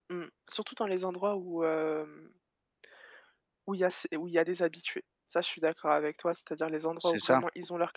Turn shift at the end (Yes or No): No